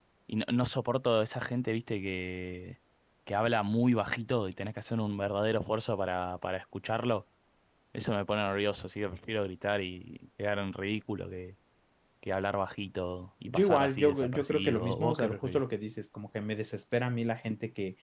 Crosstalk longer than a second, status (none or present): present